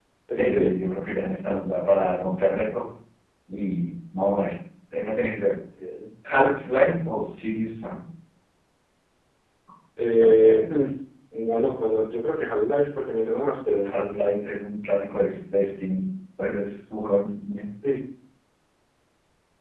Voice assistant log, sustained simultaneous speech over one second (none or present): none